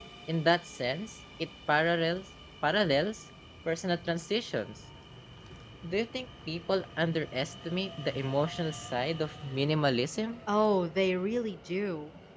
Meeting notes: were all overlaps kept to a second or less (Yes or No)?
Yes